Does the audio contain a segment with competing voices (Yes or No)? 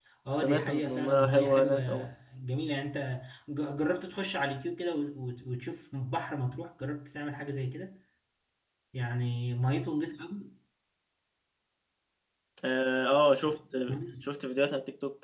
Yes